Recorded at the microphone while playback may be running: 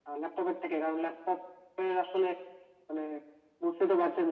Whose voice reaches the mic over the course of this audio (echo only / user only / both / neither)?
echo only